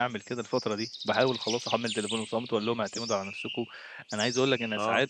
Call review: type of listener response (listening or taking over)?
listening